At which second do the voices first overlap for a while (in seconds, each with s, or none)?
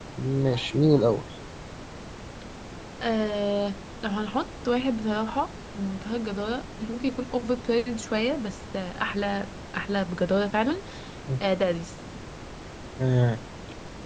none